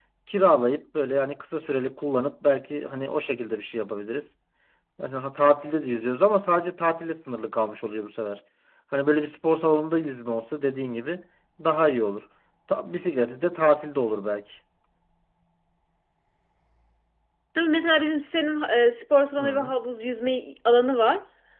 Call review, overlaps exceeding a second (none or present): none